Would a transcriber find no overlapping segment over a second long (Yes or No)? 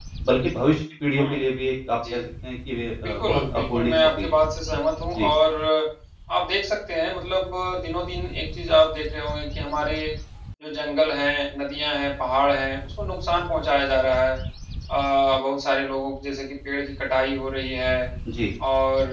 No